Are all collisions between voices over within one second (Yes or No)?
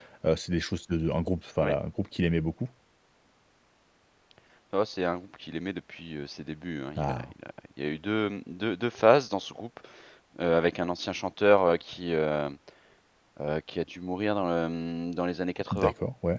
Yes